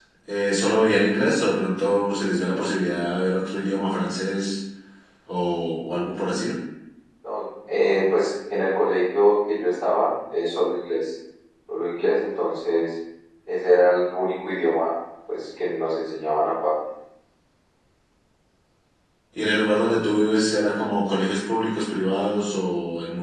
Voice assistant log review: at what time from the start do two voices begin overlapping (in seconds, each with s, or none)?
none